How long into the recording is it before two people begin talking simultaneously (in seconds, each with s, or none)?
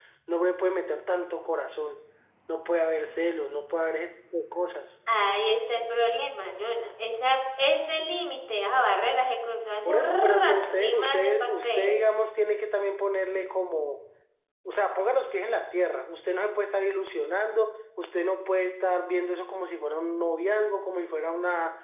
9.8 s